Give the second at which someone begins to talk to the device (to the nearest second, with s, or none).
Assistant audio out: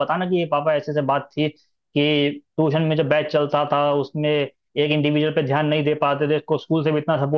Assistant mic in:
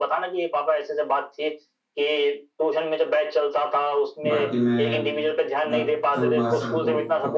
4 s